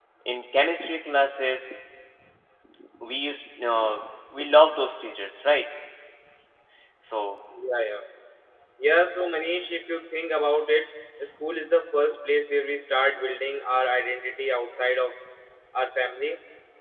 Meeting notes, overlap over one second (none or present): none